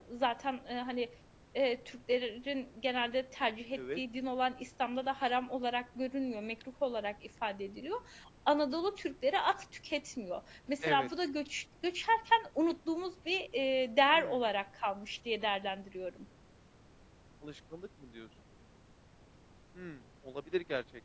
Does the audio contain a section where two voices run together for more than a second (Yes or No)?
No